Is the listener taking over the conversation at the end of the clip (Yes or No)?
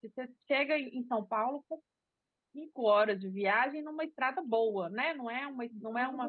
Yes